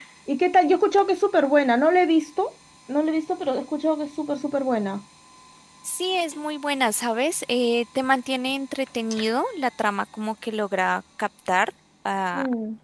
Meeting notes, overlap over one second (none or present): none